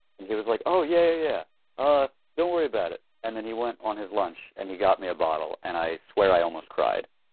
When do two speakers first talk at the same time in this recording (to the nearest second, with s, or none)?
none